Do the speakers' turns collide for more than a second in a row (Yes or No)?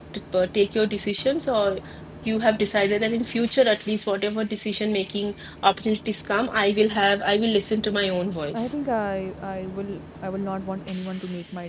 No